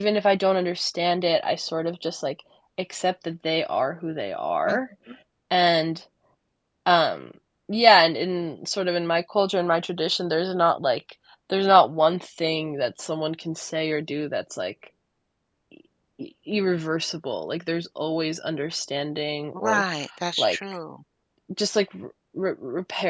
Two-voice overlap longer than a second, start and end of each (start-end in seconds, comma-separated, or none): none